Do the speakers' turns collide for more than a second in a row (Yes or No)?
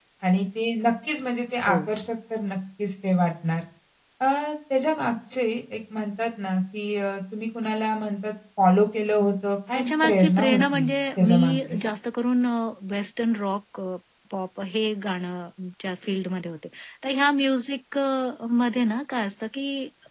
Yes